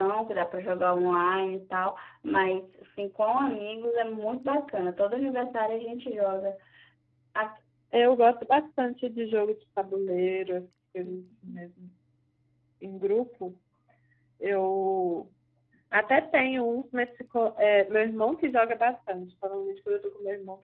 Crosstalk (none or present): none